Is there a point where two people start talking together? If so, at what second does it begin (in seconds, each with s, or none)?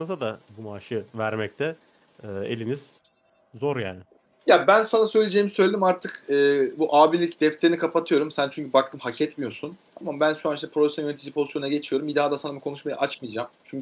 none